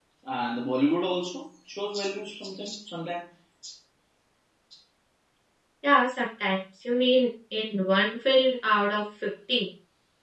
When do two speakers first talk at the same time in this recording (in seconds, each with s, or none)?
none